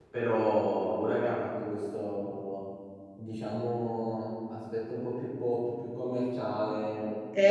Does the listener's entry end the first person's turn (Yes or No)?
Yes